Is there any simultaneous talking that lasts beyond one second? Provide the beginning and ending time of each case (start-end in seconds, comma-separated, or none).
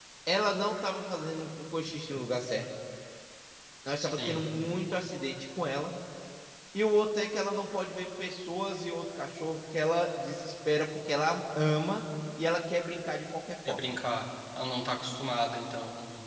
none